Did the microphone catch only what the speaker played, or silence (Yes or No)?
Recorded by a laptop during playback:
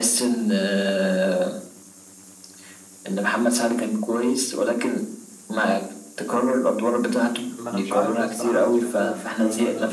No